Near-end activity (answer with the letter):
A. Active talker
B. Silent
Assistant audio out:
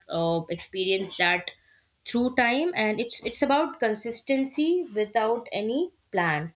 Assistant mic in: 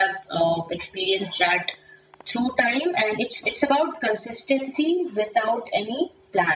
B